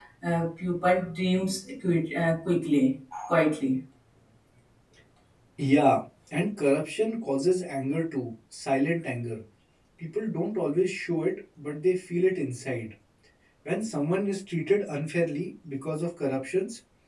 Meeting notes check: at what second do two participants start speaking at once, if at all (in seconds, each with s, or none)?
none